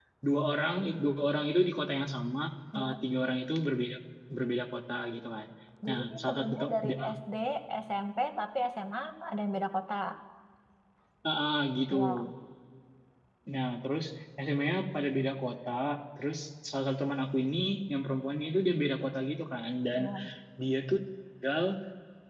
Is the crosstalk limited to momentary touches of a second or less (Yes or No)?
No